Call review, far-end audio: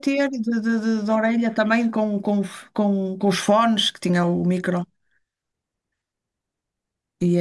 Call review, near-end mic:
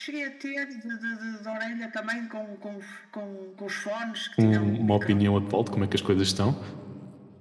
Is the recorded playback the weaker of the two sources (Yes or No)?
Yes